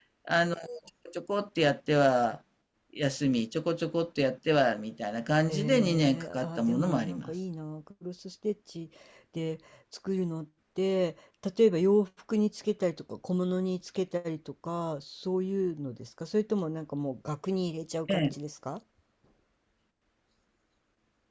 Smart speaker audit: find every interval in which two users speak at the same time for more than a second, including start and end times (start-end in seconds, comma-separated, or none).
5.5-7.3